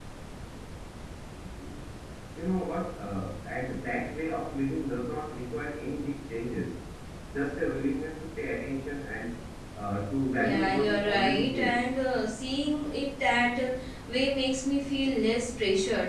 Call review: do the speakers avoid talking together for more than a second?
No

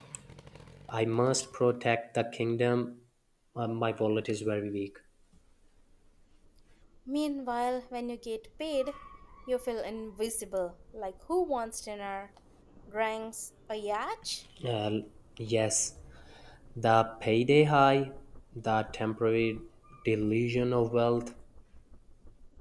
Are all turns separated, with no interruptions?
Yes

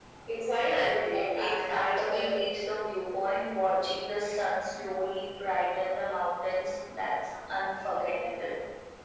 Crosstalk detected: Yes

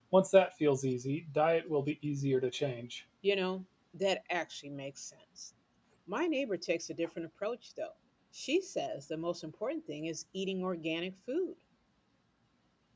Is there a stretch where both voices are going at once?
No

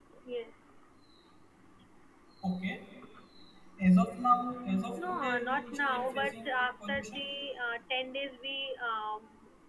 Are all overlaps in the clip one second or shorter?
No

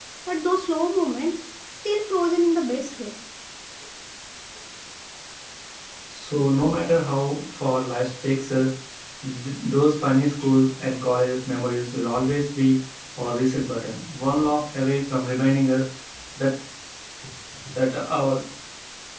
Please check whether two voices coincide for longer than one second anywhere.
No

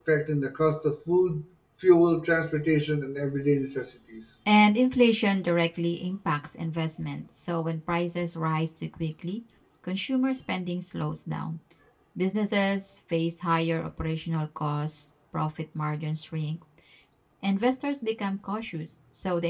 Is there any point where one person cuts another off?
No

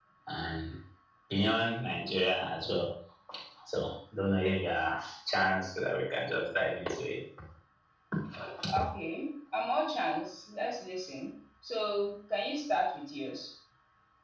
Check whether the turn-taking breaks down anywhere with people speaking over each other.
No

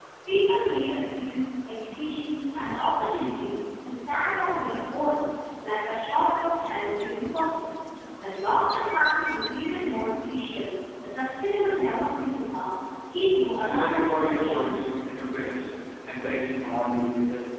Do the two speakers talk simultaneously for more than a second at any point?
Yes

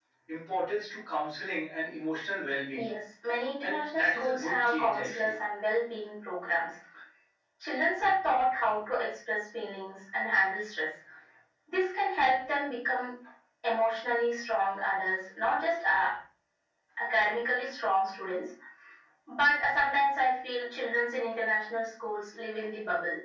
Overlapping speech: Yes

